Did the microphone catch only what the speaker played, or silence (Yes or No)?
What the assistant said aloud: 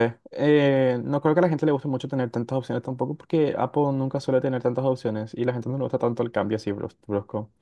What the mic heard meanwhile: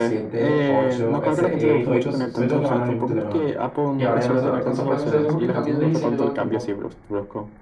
No